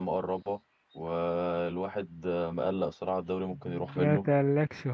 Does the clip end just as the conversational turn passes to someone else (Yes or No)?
Yes